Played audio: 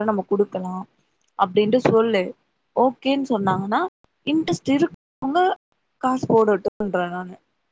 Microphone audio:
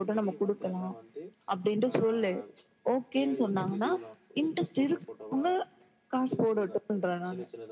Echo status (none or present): present